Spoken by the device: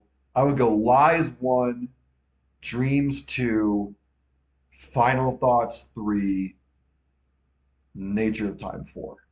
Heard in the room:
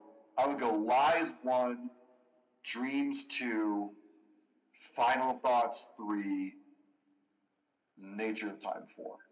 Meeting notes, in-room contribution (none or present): none